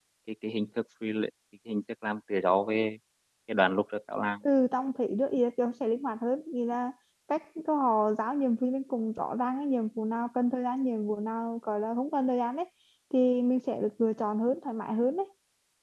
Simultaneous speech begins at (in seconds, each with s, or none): none